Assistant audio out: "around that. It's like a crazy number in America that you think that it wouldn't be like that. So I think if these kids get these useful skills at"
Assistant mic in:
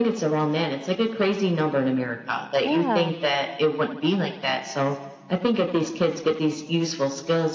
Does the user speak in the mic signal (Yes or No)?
Yes